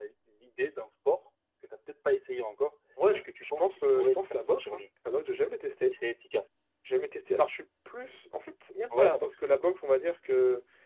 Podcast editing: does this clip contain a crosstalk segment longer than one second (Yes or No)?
Yes